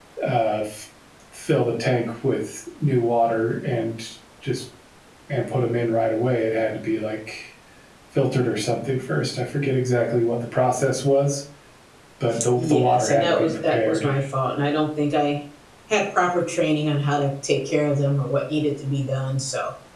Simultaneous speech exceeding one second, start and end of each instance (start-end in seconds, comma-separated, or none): 12.6-14.1